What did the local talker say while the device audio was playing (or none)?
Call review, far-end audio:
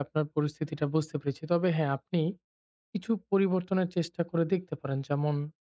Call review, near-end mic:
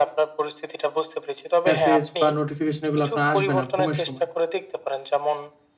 মেসেজ বা নোটিফিকেশন এগুলো আপনার আসবে না ঘুমের সময়।